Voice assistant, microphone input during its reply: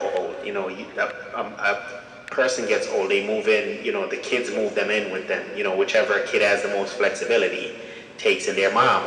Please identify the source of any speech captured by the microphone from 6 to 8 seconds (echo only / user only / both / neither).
echo only